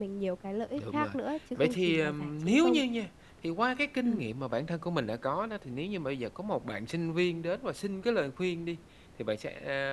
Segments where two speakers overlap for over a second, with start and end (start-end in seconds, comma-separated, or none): 1.6-2.8